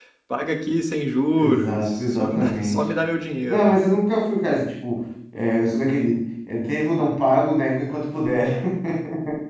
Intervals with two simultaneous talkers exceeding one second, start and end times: 1.4-2.9

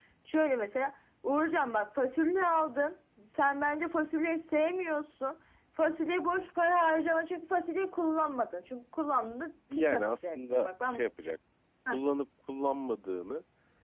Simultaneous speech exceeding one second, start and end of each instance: 9.7-11.0

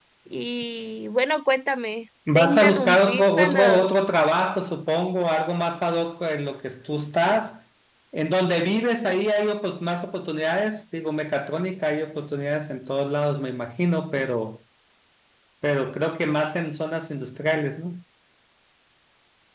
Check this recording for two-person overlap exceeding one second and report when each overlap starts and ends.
2.3-3.6

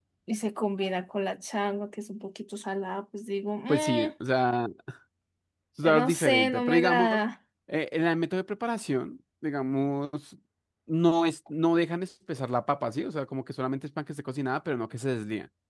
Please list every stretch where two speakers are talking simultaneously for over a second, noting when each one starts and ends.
6.0-7.2

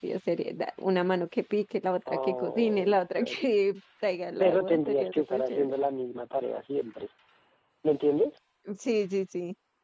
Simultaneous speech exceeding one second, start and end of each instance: 2.1-3.4, 4.4-5.7

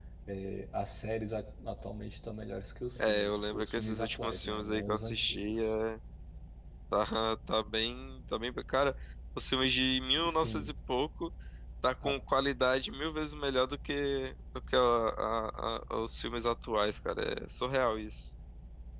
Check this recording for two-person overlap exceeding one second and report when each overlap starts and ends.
3.0-5.7

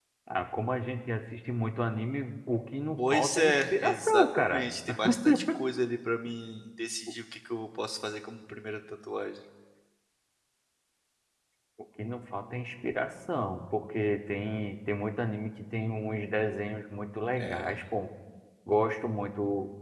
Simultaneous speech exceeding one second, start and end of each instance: 3.0-4.6

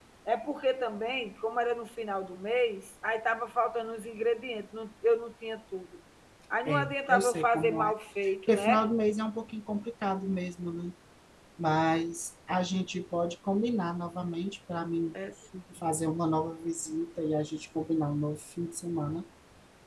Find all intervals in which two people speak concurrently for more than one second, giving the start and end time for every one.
6.7-7.9

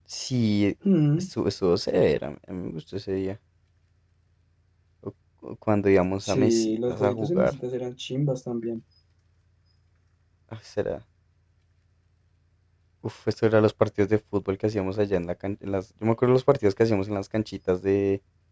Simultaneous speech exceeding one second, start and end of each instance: 6.2-7.5

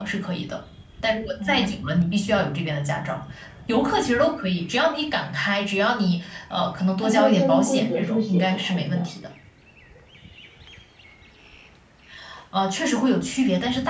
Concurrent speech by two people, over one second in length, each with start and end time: 7.0-9.1

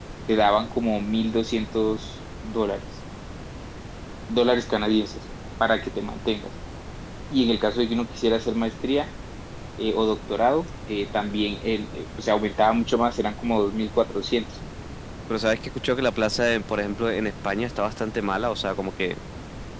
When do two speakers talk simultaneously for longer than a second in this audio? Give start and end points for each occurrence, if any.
none

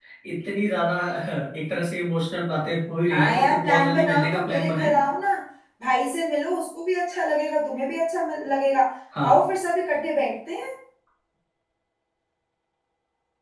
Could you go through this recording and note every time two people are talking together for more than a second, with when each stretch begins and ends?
3.1-4.9

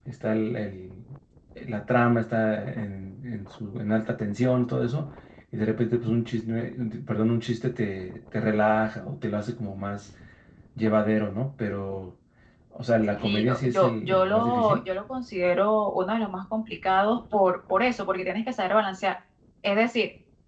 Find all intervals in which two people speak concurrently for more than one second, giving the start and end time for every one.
13.2-14.8

